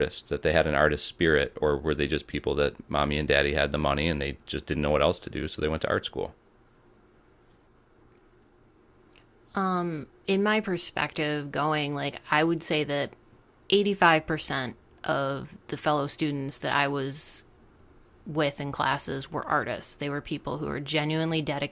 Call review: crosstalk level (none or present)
none